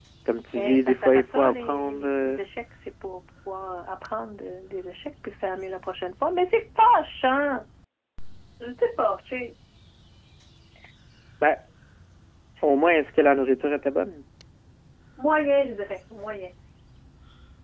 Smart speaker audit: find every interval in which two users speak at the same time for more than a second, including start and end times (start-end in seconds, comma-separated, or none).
0.6-2.4